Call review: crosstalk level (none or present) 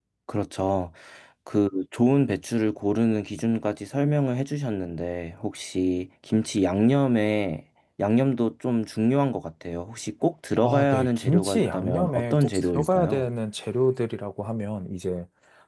present